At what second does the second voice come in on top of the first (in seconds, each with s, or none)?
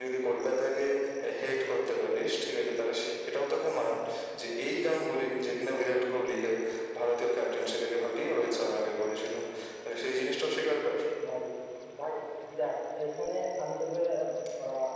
none